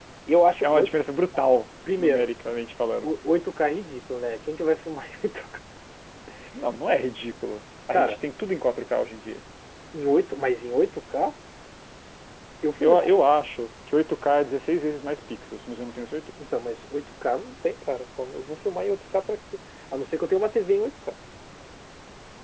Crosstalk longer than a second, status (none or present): none